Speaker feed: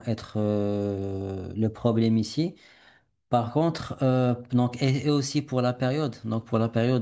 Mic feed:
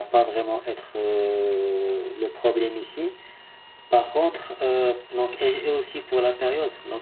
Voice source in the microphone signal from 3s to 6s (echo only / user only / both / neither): echo only